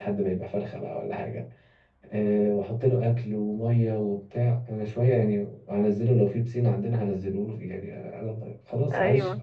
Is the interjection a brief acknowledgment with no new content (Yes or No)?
Yes